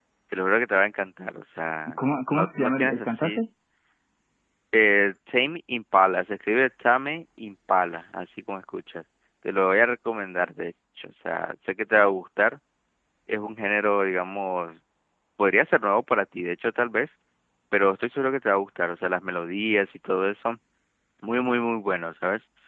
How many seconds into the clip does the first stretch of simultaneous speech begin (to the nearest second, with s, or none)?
2 s